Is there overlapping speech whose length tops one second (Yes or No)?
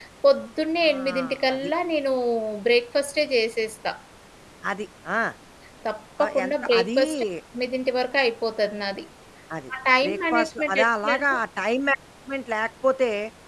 Yes